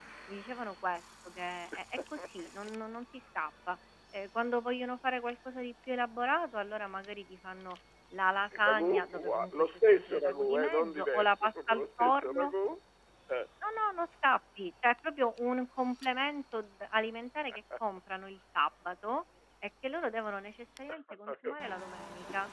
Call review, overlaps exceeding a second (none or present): present